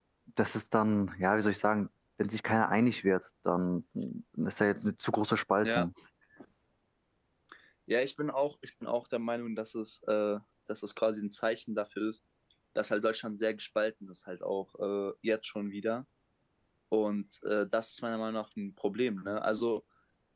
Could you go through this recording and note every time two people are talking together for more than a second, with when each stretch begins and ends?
none

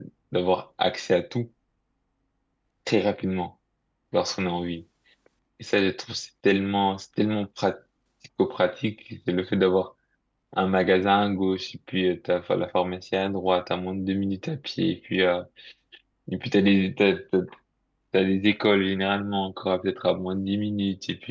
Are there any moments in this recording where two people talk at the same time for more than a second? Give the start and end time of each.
none

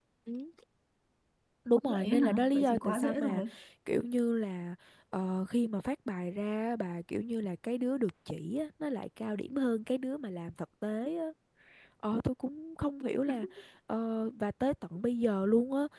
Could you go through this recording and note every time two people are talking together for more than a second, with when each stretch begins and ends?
1.9-3.4

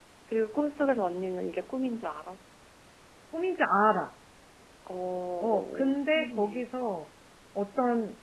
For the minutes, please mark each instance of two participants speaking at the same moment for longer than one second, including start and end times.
5.4-6.7

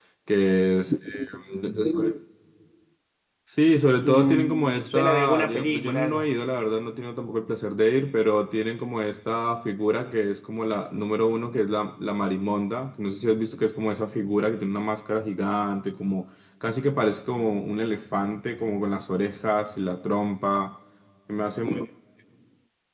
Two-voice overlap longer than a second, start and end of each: 4.0-6.3

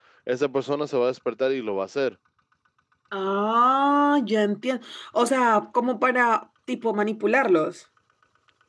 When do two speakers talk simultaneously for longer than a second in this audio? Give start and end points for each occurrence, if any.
none

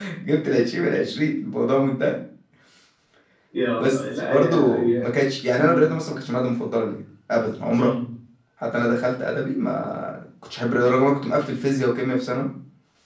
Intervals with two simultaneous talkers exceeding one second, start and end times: 3.8-5.1

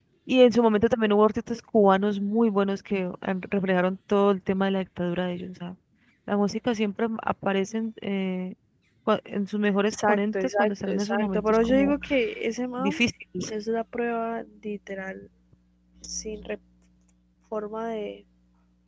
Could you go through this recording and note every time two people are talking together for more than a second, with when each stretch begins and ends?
9.9-11.9

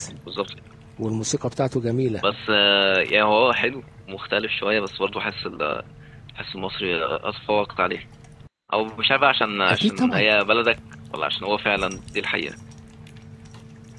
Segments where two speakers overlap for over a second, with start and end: none

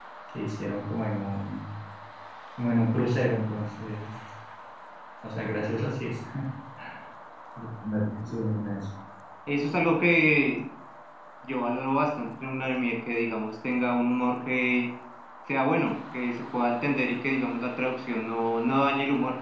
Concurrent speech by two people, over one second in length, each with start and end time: none

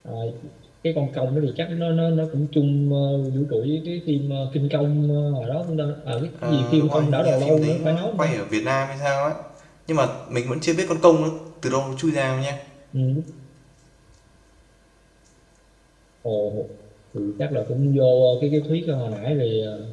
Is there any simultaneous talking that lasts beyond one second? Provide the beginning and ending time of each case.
6.4-8.3

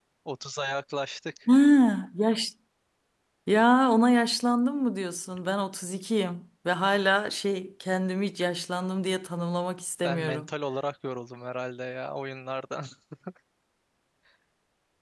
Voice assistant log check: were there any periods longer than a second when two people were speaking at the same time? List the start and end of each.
none

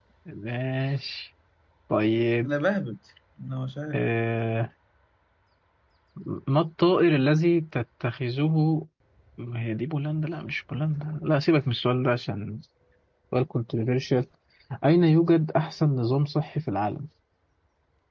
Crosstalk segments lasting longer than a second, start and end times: none

